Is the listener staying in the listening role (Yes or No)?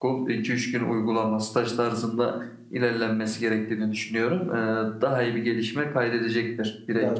No